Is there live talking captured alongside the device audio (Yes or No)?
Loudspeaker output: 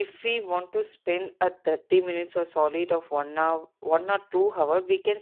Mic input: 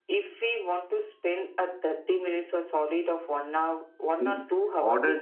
Yes